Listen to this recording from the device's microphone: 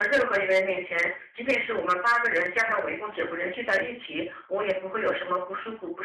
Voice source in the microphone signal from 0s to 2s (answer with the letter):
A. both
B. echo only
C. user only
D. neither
B